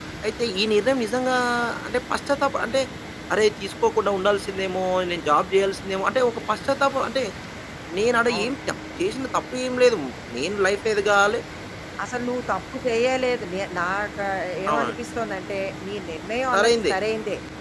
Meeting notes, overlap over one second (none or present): none